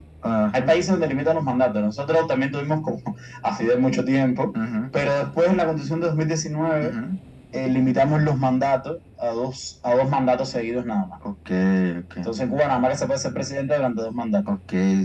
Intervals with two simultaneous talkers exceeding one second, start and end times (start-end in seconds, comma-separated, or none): none